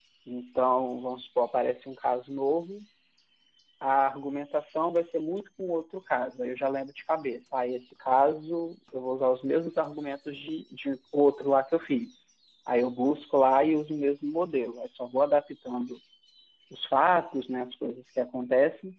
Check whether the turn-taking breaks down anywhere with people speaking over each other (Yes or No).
No